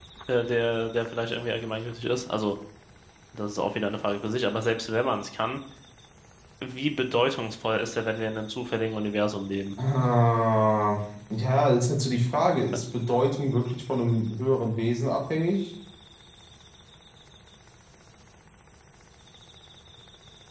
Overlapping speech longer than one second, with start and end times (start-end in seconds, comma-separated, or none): none